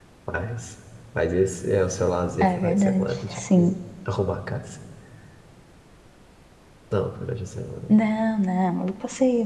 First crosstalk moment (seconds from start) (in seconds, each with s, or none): 2.4 s